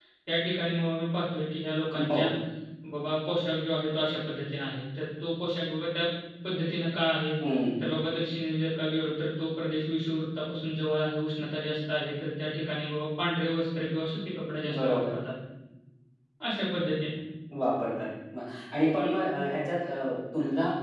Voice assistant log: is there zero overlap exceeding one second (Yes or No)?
Yes